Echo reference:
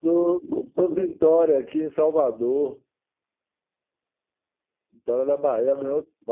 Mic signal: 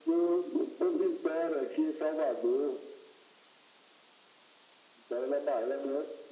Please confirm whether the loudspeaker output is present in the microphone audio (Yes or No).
Yes